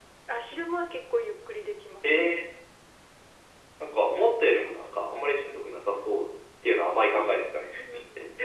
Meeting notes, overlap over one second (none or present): none